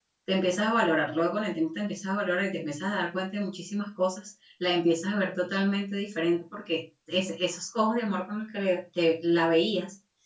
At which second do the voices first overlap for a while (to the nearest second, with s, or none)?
none